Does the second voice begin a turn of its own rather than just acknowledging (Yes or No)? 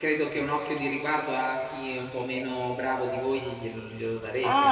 Yes